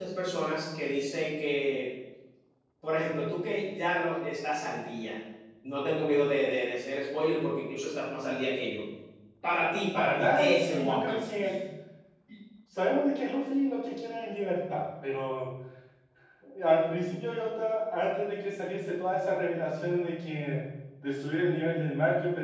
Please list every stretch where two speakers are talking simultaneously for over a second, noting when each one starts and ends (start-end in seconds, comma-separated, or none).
9.9-11.3